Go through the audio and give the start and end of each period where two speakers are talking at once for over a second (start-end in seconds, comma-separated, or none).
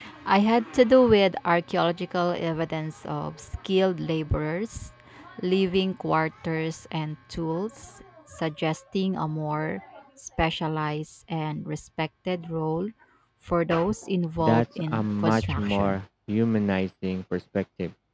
14.4-16.0